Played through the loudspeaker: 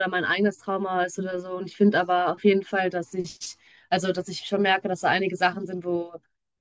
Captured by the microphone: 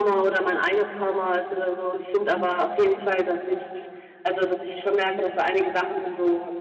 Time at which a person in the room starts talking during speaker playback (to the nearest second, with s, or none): none